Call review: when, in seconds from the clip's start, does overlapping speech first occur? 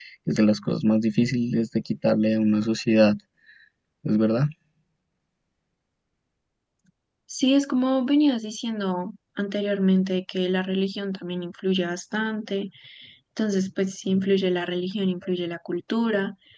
none

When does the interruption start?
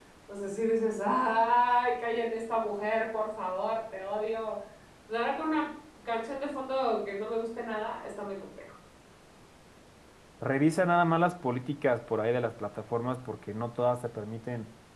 none

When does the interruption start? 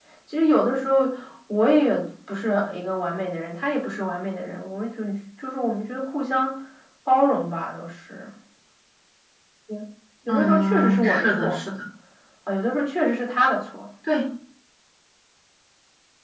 10 s

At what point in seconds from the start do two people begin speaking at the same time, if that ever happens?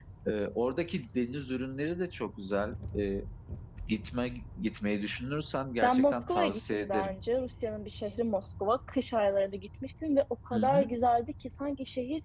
6 s

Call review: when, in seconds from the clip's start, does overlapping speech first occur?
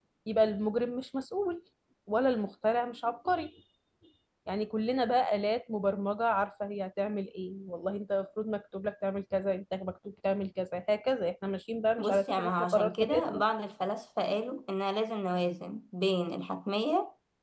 12 s

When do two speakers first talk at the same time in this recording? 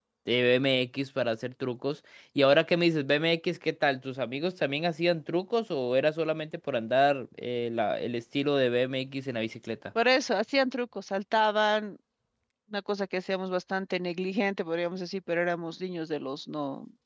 none

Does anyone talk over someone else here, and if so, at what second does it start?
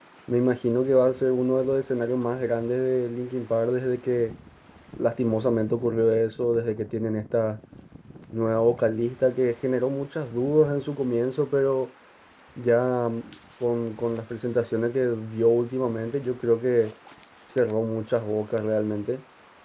none

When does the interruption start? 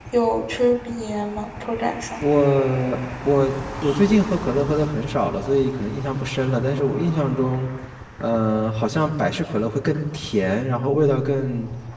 none

